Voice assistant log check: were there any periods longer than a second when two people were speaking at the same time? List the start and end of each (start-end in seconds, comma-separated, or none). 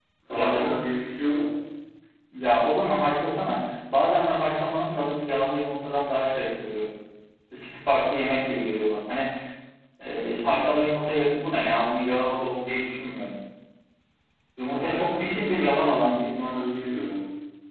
14.7-16.2